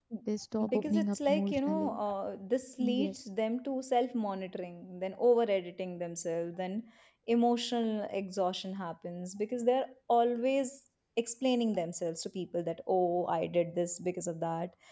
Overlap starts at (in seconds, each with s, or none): 0.7 s